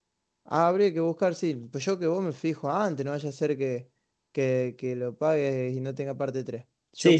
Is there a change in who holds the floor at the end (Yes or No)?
No